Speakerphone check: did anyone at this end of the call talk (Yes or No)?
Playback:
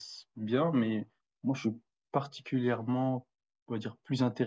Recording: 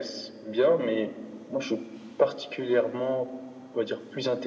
No